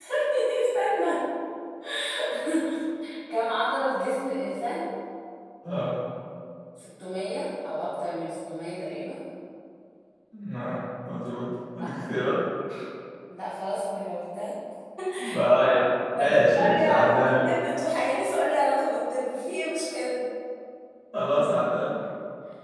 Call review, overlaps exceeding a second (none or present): present